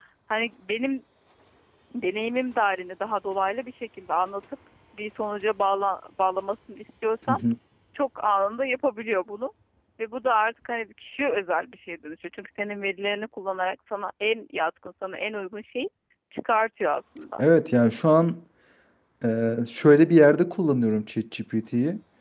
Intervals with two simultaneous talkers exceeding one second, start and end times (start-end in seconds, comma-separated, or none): none